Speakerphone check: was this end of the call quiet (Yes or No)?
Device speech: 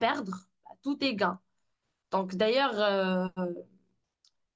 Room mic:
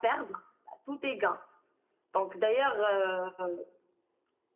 Yes